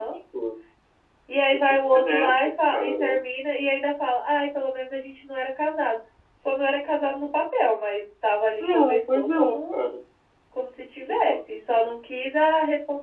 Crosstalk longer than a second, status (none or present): present